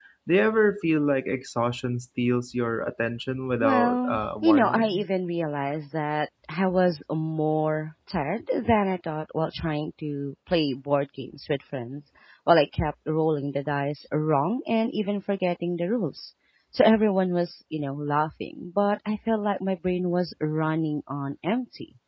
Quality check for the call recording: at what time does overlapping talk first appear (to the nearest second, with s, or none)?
4 s